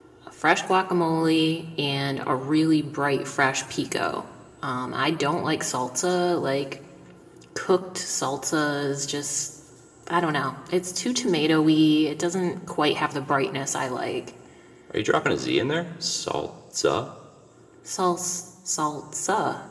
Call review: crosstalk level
none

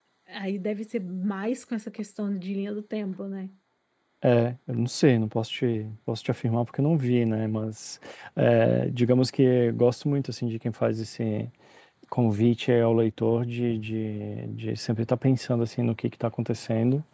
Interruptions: none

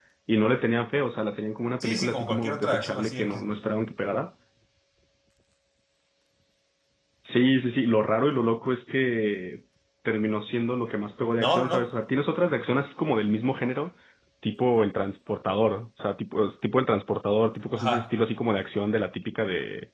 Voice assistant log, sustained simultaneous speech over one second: present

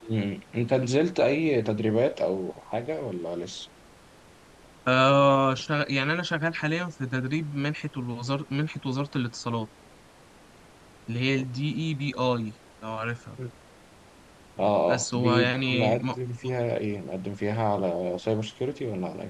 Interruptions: present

